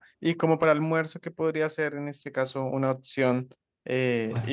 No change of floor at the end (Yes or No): Yes